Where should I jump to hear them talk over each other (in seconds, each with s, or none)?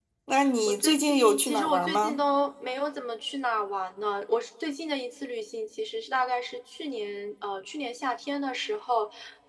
0.7 s